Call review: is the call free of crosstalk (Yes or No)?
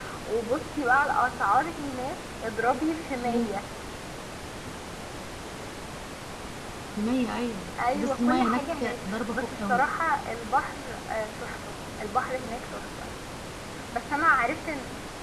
No